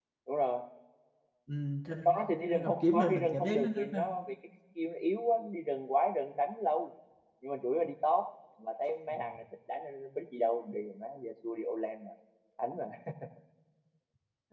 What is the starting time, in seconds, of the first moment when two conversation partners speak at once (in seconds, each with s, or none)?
2.5 s